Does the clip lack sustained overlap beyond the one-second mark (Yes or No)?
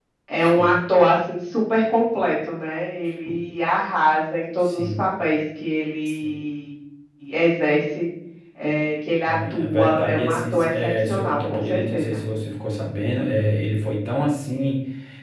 No